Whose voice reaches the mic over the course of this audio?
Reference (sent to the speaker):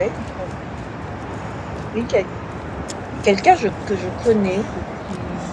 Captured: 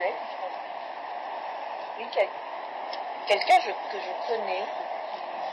echo only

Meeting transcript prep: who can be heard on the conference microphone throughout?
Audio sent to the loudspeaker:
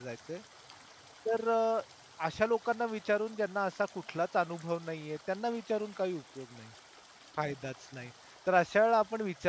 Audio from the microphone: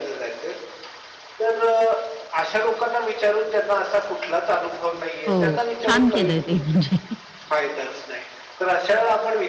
both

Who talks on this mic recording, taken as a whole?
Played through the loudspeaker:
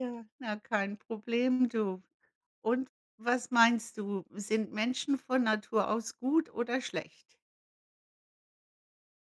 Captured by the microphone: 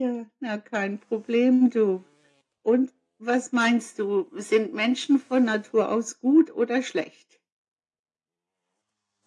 echo only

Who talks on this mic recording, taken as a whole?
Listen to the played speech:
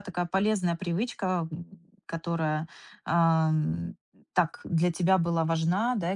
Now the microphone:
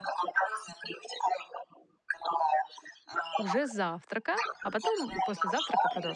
both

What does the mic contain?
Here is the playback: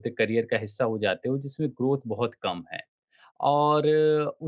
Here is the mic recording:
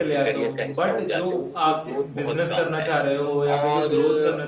both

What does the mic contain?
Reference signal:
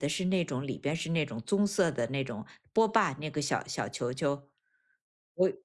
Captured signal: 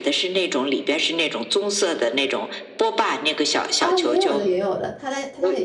both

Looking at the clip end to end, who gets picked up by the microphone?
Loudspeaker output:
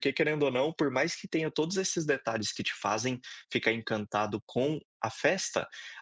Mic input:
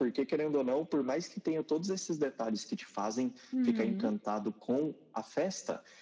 both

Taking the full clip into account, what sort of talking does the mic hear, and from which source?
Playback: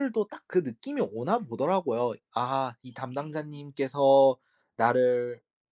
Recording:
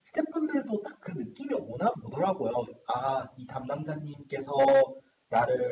echo only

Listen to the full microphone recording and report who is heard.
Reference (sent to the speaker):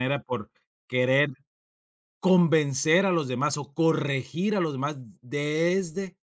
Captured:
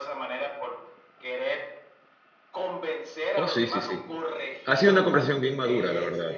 both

